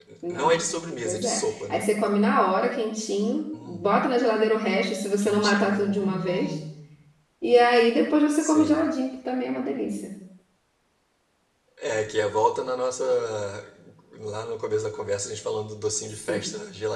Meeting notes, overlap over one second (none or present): present